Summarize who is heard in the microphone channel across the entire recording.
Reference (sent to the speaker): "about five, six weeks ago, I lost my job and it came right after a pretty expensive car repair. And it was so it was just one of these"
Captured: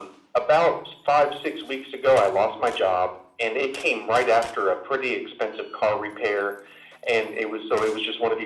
echo only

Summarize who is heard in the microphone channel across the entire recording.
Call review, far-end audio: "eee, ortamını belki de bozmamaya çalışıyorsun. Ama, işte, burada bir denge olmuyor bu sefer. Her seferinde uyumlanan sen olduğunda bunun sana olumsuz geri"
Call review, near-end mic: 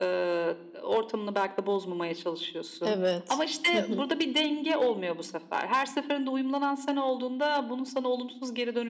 both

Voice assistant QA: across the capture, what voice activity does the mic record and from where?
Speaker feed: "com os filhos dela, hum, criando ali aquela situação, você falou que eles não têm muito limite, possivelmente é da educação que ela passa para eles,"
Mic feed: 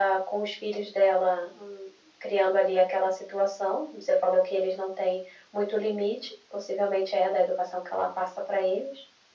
echo only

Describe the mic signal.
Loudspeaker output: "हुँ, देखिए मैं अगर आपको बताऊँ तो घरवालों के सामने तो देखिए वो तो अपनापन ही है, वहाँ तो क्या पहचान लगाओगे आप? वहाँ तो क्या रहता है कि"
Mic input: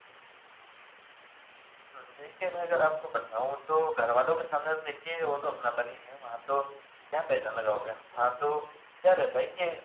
echo only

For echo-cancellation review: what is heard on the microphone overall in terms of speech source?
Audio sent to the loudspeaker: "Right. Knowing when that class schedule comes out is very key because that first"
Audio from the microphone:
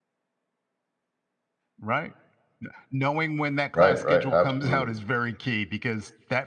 both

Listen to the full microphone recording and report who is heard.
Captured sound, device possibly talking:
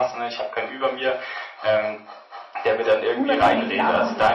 both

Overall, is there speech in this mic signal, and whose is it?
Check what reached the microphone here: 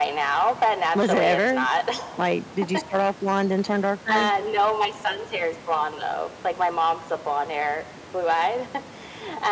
both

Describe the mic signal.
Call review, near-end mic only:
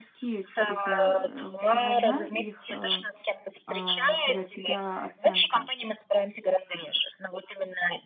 both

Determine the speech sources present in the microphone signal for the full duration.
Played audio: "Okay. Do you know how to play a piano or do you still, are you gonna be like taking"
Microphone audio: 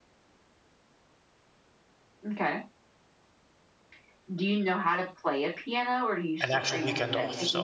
both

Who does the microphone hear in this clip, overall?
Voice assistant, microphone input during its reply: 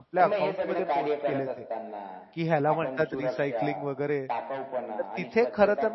both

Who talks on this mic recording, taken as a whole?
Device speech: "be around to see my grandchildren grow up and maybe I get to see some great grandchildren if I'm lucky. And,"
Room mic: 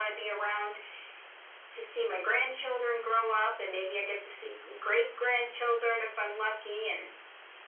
echo only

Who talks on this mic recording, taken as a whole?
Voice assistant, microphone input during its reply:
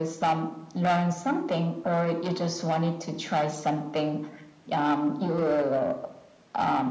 echo only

